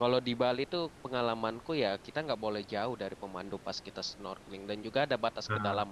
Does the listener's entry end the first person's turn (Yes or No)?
No